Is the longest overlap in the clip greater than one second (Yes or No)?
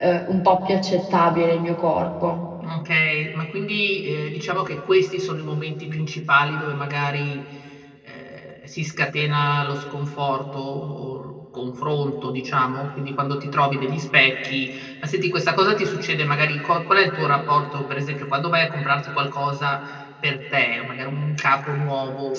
No